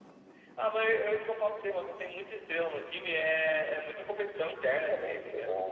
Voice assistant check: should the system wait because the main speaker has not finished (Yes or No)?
No